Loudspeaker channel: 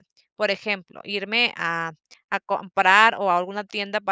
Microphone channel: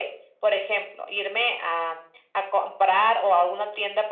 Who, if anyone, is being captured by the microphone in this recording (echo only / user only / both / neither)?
echo only